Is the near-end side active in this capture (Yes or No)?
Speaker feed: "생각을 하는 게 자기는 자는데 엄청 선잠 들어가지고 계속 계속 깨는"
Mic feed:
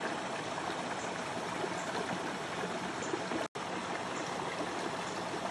No